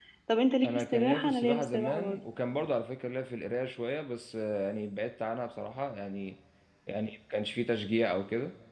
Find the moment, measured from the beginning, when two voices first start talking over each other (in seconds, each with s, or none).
0.6 s